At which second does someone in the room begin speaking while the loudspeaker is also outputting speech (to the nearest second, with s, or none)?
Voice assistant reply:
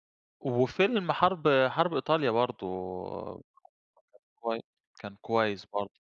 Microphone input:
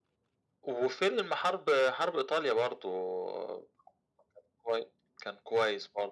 none